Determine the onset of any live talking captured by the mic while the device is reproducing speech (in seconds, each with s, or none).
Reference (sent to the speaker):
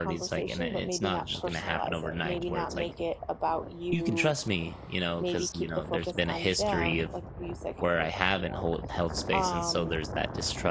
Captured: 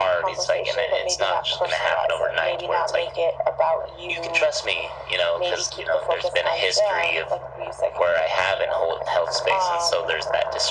none